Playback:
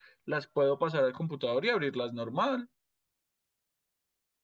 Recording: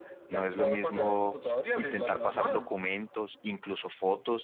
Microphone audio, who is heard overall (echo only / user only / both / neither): both